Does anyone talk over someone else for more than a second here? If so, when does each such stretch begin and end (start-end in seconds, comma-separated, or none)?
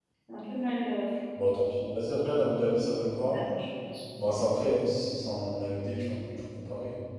none